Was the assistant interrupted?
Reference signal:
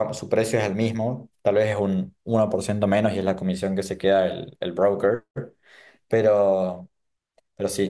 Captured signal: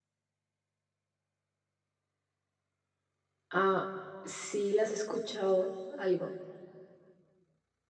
Yes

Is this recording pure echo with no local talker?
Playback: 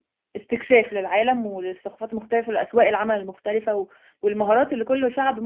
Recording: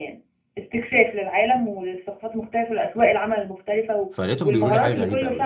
No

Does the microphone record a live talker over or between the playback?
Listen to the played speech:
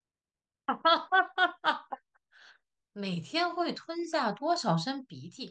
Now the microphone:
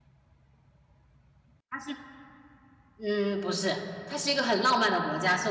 Yes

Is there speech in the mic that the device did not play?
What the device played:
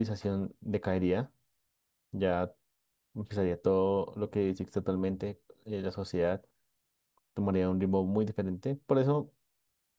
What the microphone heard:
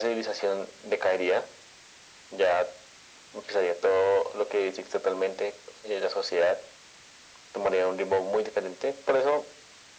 No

